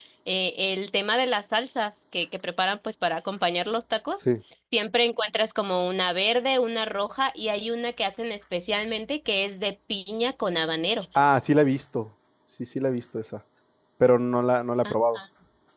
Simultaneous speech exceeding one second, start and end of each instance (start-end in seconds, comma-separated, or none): none